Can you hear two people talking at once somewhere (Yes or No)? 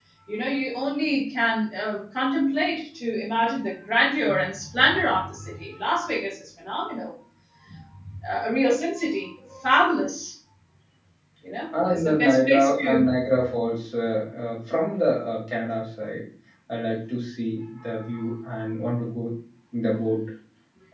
Yes